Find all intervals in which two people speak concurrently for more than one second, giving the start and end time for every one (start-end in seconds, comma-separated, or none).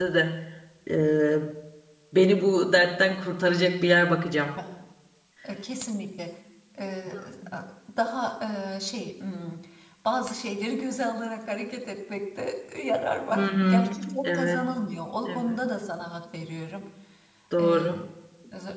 13.3-14.7